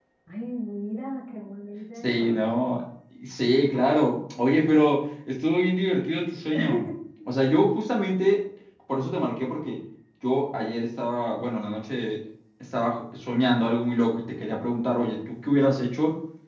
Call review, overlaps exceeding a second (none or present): none